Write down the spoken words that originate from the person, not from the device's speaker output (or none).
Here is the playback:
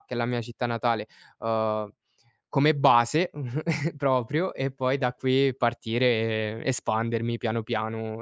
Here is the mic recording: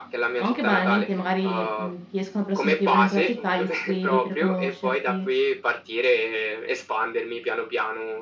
o anche banalmente magari, mhmm, ti escono persone che vivono in quella città, gli scrivi per conoscerti.